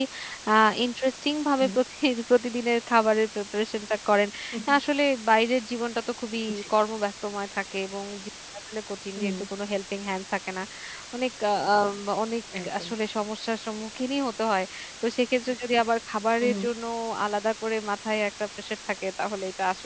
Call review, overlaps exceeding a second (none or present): none